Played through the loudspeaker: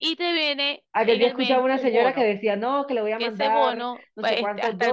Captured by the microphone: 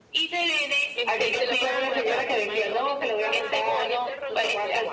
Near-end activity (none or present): present